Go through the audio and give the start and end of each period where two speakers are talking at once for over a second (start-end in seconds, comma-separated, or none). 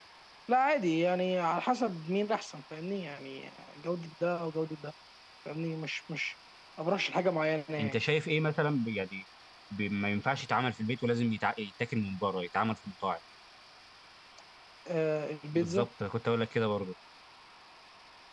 none